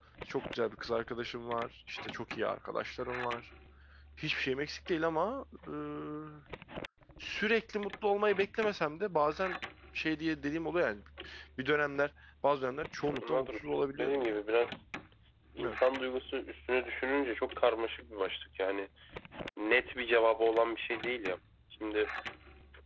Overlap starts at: 13.1 s

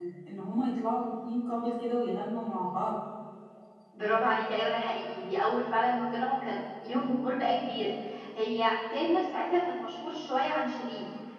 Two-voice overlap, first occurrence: none

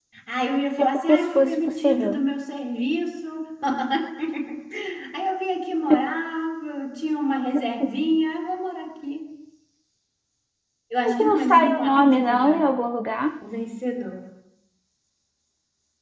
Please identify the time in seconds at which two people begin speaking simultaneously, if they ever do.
0.8 s

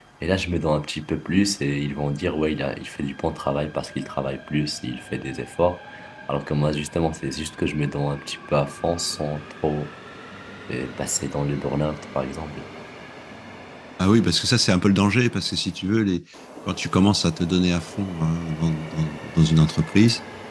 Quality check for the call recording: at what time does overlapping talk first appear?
none

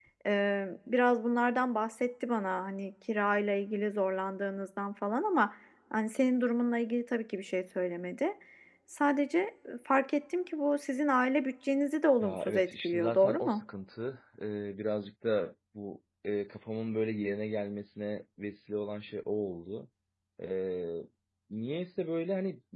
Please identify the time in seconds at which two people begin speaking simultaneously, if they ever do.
12.2 s

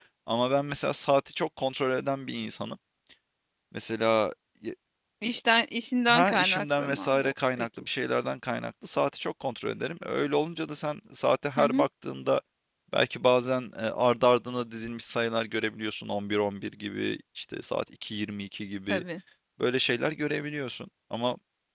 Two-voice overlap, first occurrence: 6.1 s

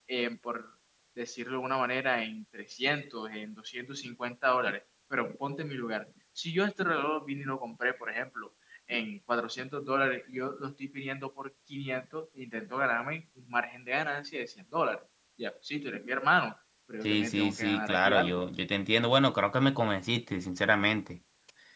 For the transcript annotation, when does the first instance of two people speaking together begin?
17.0 s

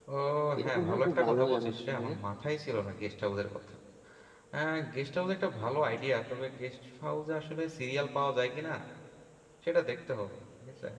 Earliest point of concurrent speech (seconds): 0.6 s

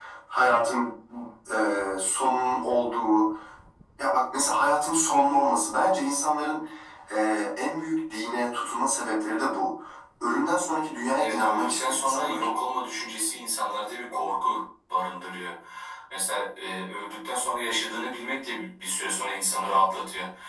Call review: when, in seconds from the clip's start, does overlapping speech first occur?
11.2 s

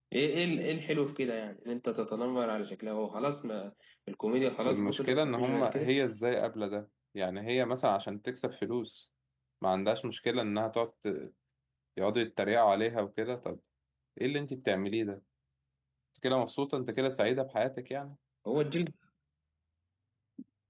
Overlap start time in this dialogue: 4.7 s

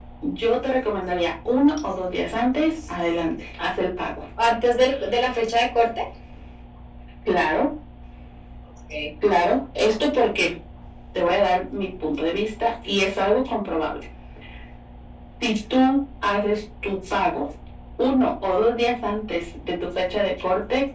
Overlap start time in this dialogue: none

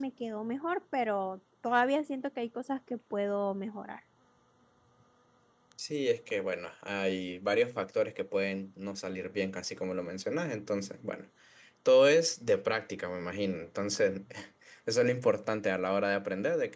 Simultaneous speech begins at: none

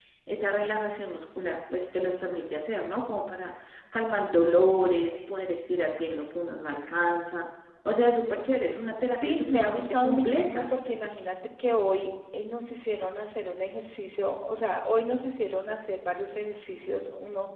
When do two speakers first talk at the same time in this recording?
9.1 s

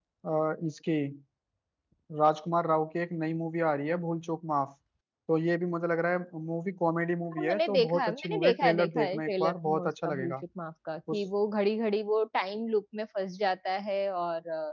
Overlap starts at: 7.3 s

